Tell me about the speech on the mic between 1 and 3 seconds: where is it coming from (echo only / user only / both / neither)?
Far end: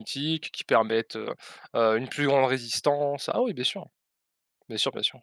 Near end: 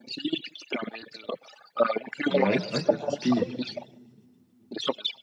both